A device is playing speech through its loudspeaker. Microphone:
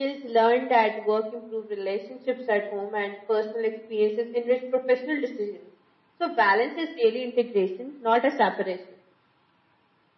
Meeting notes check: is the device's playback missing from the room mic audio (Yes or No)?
No